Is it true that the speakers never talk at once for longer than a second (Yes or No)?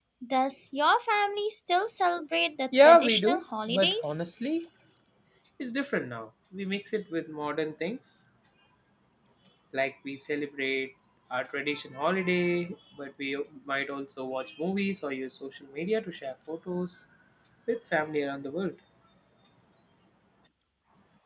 No